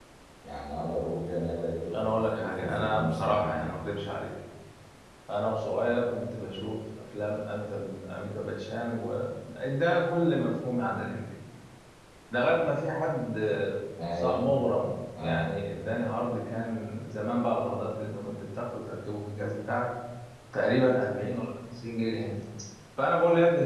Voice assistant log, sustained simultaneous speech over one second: present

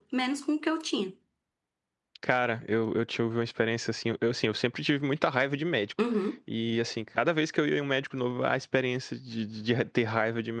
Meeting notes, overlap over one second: none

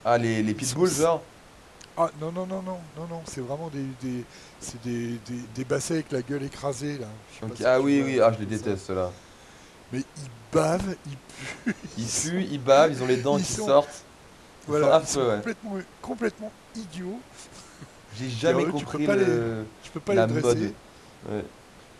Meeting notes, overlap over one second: present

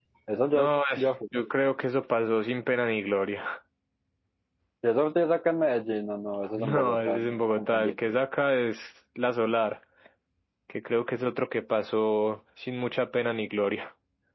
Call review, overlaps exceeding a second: present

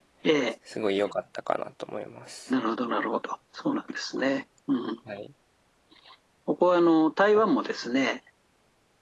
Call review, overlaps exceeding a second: none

